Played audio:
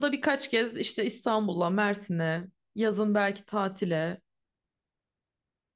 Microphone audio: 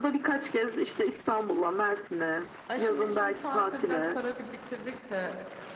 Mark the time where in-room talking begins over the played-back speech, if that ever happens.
3 s

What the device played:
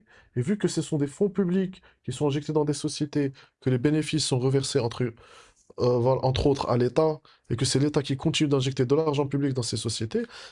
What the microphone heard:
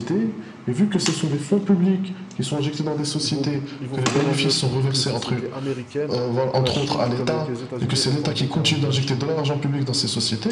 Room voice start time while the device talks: 3 s

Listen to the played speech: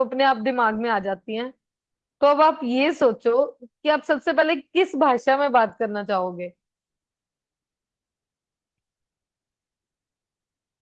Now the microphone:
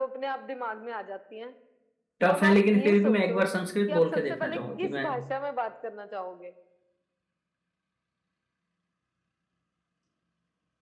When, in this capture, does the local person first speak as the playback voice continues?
2 s

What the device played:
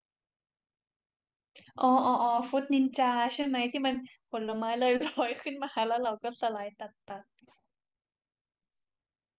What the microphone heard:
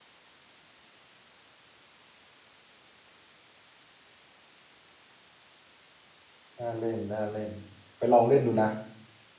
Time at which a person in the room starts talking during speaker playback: 7 s

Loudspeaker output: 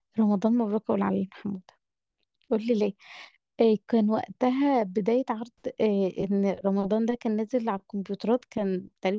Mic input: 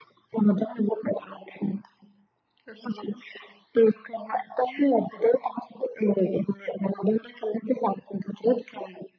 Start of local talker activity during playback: none

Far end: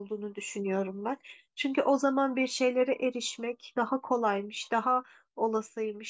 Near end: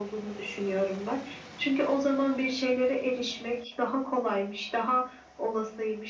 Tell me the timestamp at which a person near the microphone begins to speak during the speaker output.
none

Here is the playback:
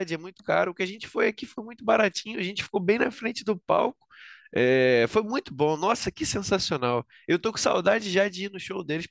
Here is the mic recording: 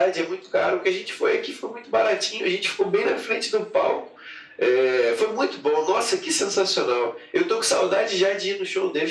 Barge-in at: none

